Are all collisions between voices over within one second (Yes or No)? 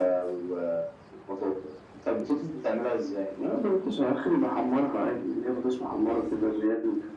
Yes